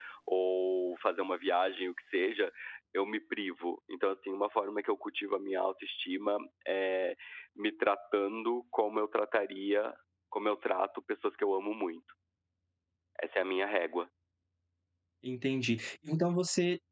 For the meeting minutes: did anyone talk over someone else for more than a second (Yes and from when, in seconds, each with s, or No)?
No